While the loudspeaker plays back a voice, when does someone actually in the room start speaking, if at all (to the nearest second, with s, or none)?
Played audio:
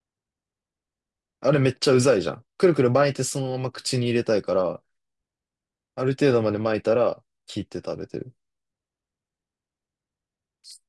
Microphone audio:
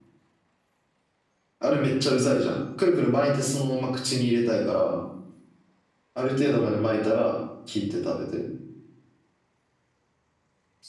none